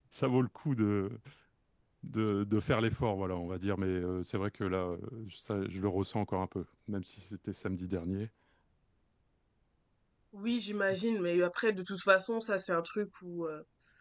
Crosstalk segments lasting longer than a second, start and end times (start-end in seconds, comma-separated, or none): none